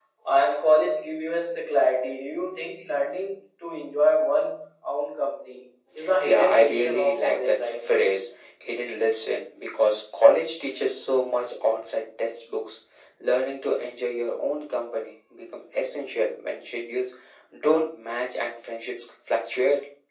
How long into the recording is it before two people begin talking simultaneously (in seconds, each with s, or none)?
6.2 s